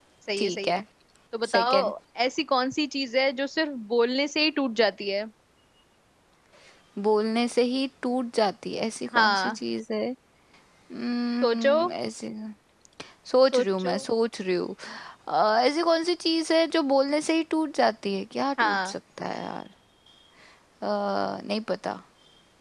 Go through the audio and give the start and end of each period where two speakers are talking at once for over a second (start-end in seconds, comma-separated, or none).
none